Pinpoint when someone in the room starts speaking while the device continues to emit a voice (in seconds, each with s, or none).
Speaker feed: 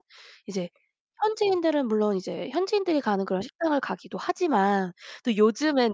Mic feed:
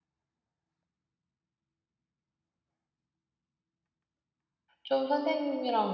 4.8 s